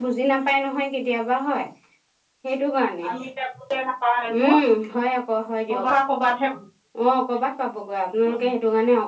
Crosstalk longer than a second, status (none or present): none